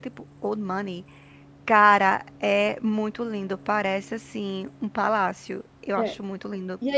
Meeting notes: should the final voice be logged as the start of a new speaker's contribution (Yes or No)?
Yes